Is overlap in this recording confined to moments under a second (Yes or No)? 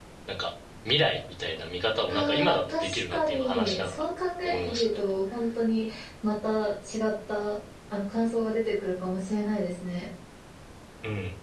No